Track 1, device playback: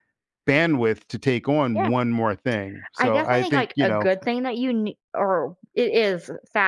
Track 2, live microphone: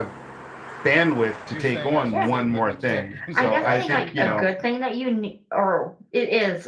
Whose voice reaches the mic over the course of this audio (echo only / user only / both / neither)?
both